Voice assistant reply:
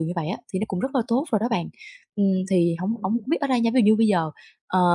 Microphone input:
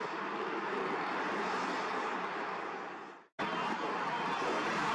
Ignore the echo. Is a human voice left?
No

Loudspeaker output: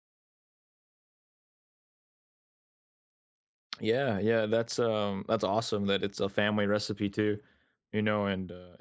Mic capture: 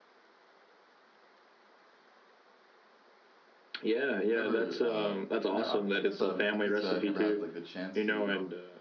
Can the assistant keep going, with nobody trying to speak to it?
No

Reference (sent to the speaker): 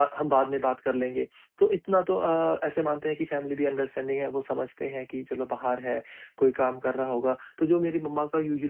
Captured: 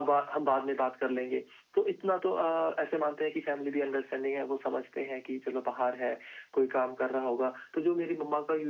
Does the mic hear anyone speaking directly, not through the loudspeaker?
No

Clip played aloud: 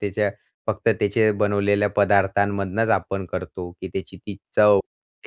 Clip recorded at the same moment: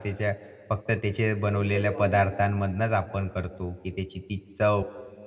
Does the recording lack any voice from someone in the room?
No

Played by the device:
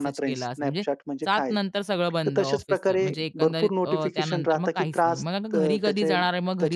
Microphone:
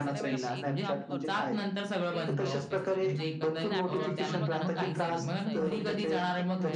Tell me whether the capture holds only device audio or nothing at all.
No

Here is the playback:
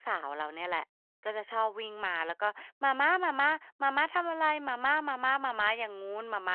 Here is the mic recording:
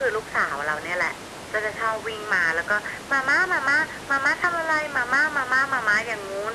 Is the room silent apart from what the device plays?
Yes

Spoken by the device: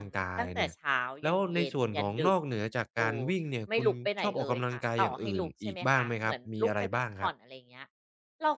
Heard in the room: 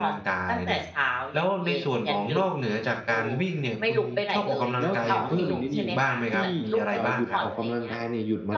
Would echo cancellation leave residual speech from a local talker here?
Yes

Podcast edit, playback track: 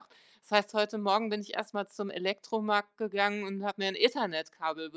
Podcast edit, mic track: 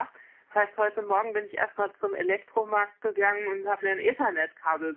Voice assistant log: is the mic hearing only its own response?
Yes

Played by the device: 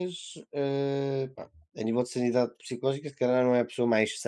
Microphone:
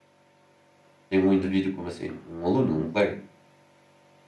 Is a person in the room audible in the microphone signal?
Yes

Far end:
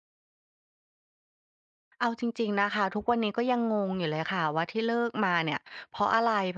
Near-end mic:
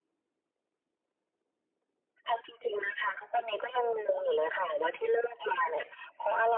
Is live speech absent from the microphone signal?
Yes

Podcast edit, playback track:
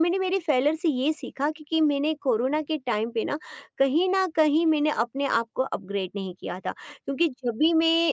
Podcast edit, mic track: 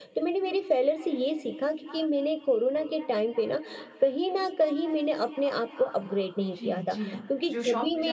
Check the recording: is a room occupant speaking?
Yes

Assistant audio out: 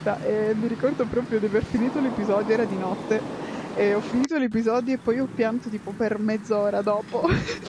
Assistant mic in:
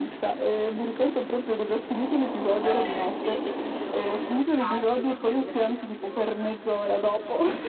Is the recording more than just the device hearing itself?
Yes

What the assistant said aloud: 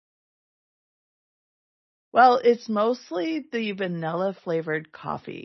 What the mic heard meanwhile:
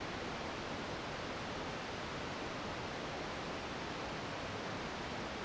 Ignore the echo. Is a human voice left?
No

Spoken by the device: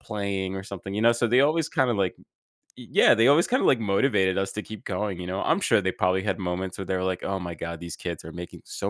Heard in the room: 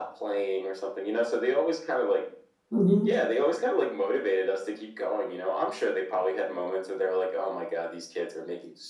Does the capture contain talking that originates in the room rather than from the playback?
Yes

